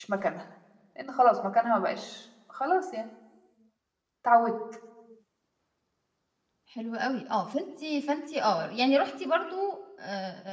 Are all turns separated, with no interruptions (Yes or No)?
Yes